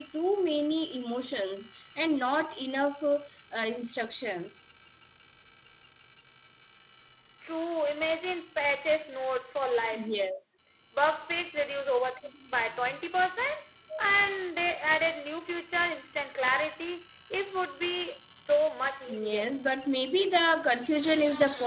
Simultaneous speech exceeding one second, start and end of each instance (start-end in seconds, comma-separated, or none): none